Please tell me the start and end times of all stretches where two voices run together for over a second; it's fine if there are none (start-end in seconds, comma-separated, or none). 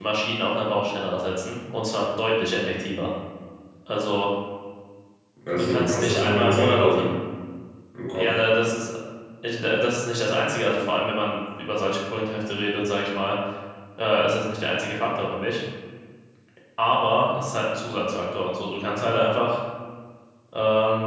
5.5-7.1